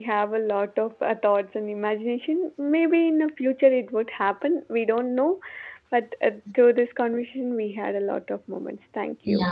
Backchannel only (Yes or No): No